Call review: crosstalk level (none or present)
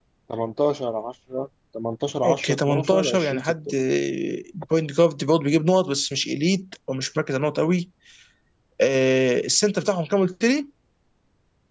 present